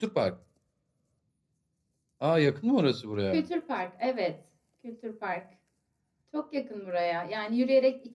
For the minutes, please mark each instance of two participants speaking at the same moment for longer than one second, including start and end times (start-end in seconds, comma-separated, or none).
none